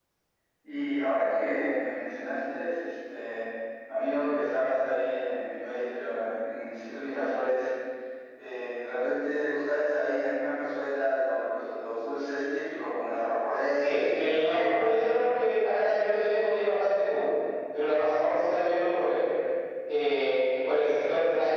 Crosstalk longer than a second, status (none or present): present